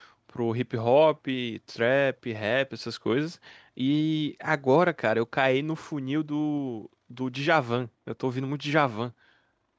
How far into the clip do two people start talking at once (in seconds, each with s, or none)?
none